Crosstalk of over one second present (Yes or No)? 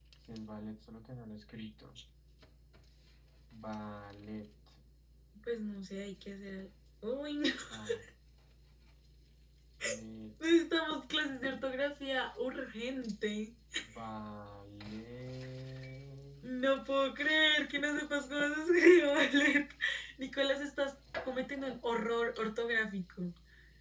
No